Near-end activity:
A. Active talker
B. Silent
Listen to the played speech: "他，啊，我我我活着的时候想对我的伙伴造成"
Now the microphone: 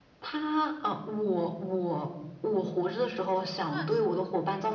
A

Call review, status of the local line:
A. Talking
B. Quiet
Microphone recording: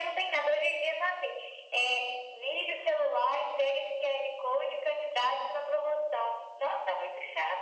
B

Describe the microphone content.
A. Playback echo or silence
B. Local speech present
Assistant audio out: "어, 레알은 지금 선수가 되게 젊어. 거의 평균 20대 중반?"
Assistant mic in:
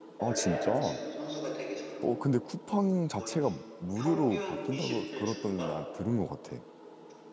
B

